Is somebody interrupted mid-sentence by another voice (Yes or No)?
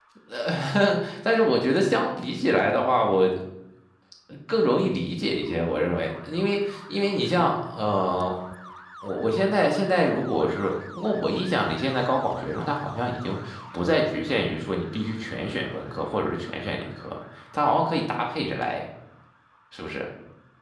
No